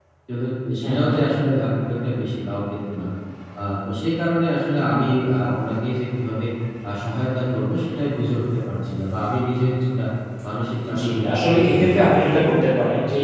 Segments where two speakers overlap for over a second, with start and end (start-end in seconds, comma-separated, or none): 11.0-12.4